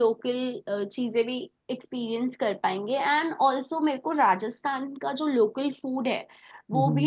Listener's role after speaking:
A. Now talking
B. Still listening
B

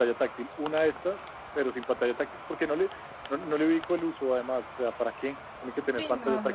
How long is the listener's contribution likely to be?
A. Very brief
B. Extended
B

